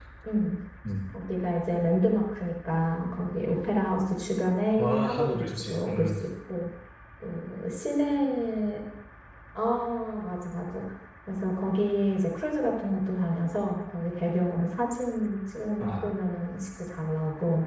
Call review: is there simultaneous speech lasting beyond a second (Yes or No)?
Yes